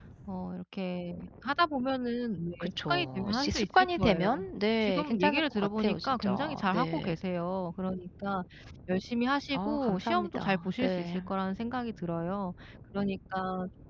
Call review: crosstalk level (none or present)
present